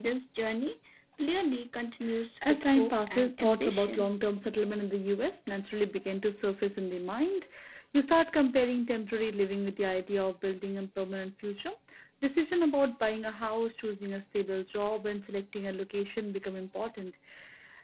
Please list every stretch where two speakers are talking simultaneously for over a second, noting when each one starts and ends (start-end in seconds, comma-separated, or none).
2.5-4.1